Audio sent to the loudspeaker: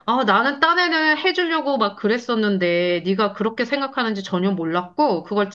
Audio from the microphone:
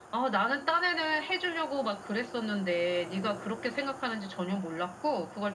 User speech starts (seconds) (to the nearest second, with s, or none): none